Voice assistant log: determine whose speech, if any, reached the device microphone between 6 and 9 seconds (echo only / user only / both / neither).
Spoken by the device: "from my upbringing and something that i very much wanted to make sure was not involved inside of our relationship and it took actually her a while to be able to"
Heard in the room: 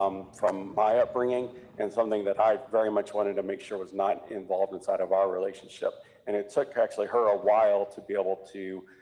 echo only